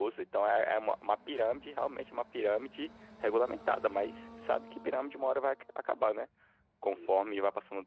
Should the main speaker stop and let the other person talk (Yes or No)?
No